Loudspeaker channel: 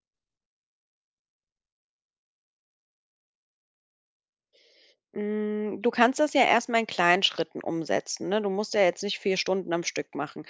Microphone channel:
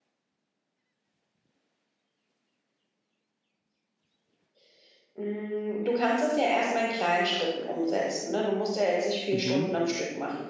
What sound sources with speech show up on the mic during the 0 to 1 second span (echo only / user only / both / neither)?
neither